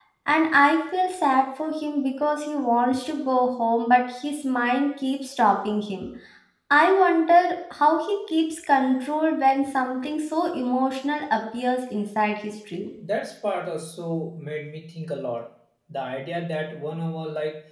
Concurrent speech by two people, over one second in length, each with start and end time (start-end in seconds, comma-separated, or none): none